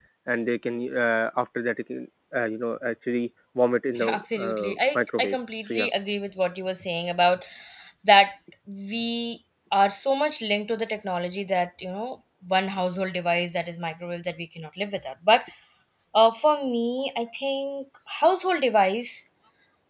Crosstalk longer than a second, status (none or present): present